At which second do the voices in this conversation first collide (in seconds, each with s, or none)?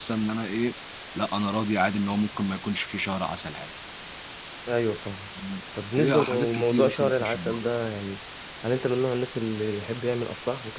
6.0 s